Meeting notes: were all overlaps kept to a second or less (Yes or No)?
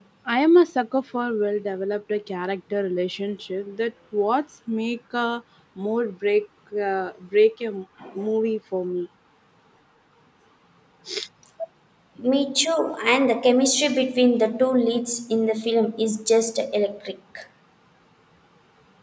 Yes